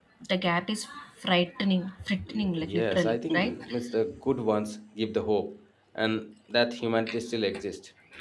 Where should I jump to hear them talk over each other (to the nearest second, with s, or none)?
2 s